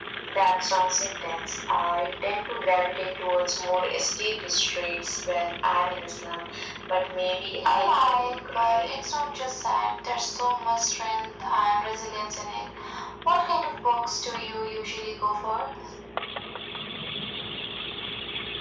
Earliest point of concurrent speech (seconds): 7.6 s

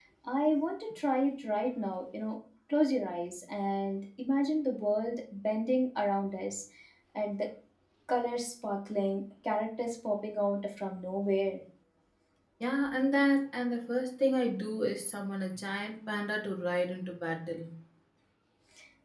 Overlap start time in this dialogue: none

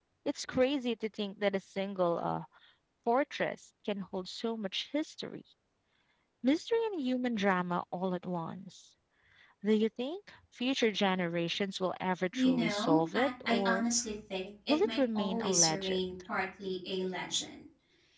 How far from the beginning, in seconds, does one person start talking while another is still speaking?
12.3 s

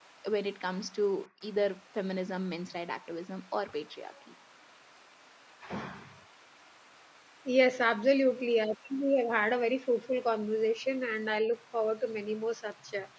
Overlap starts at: none

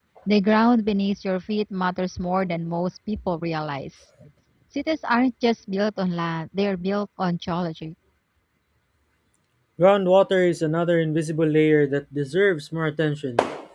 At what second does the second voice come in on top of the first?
none

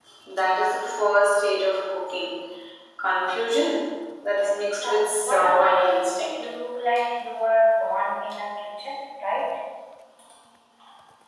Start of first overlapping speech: 4.8 s

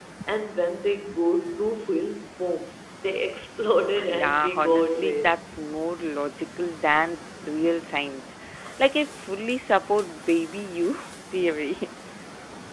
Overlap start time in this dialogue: 4.0 s

